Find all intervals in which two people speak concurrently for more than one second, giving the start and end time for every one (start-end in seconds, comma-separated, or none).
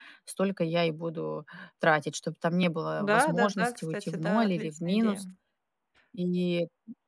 3.0-5.2